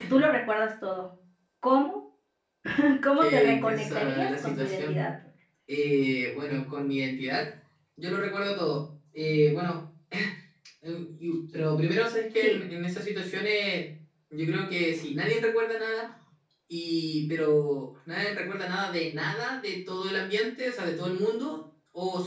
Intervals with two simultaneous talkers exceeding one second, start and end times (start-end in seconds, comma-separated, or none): 3.2-5.0